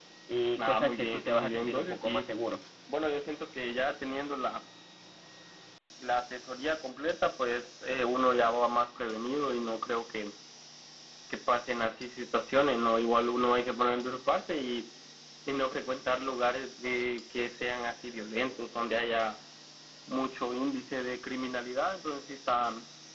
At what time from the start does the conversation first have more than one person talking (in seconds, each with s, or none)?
0.6 s